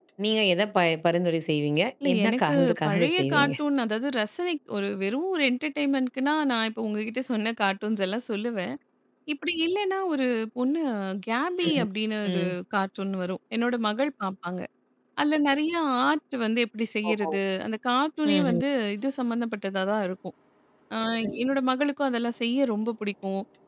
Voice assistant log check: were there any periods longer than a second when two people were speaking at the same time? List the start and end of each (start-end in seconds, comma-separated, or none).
2.0-3.5